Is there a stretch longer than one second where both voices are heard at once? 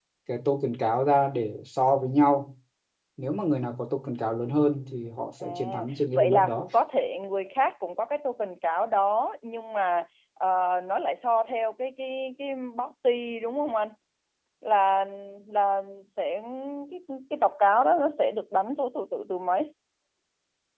Yes, from 5.4 s

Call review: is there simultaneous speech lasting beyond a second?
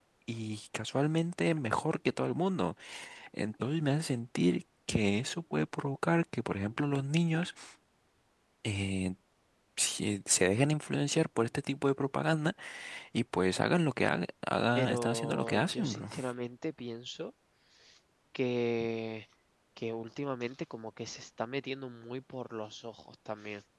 Yes, from 14.7 s

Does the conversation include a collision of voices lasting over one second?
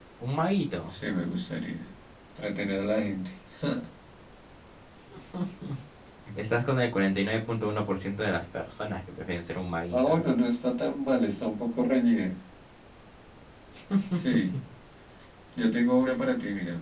No

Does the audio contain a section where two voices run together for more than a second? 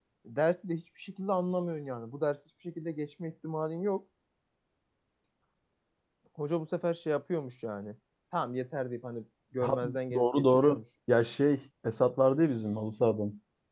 Yes, from 9.6 s

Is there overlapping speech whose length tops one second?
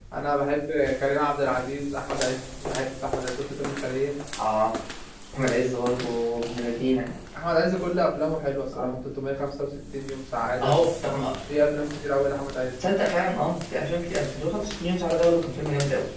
No

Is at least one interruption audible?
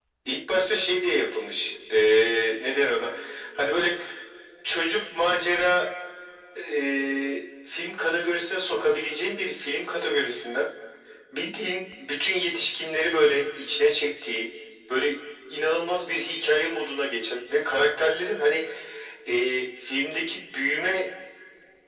No

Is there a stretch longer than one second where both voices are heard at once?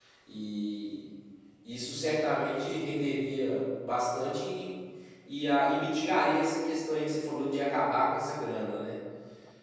No

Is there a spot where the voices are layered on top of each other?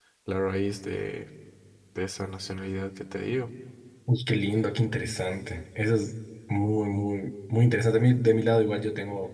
No

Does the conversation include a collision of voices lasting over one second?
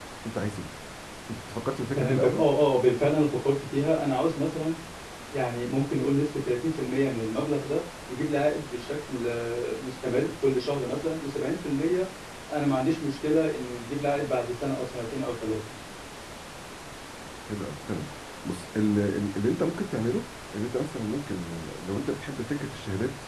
No

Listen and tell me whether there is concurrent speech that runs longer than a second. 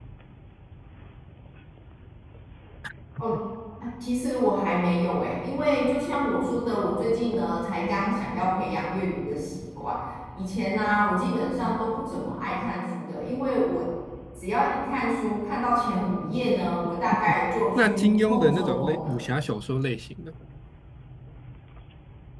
Yes, from 17.8 s

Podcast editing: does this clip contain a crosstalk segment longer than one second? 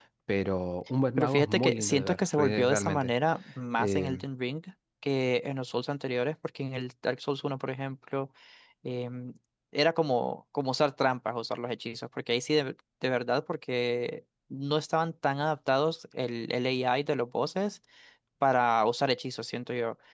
Yes, from 1.2 s

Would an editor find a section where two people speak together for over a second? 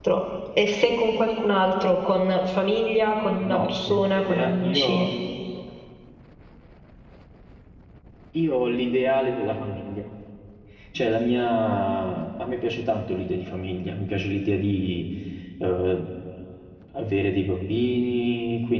Yes, from 3.4 s

